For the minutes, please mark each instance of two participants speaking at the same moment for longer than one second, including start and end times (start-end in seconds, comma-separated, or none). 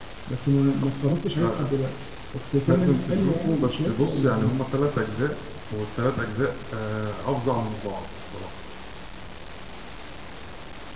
2.6-4.5